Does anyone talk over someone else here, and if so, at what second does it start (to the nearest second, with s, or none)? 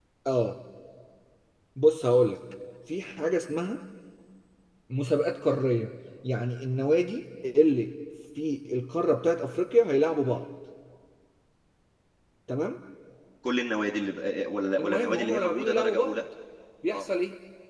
15 s